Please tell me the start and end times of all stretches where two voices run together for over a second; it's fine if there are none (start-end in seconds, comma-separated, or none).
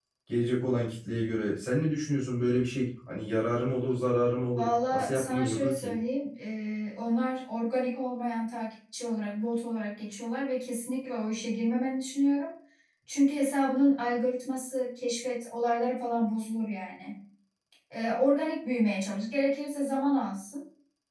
4.5-5.9